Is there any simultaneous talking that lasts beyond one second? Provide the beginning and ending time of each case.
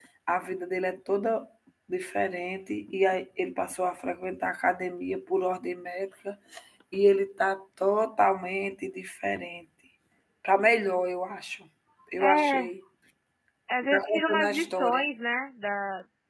13.8-15.1

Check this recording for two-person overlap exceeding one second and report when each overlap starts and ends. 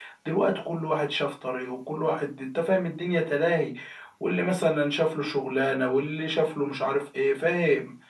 none

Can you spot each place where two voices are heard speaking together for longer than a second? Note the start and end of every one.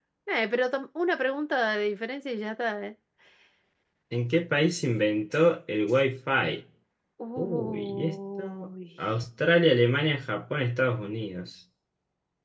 7.4-8.7

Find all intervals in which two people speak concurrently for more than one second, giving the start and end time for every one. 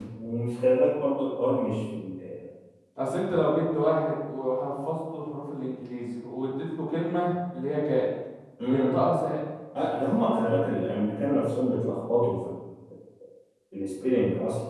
none

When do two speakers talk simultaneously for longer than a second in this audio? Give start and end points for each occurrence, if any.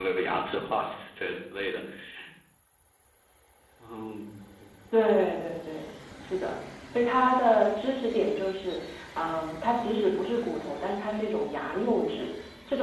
none

